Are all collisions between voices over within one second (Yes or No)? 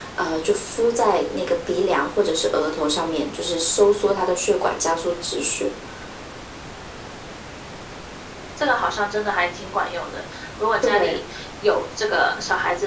Yes